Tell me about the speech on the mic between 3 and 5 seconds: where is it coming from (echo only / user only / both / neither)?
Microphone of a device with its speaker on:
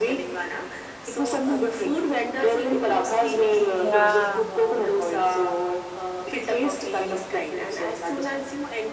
both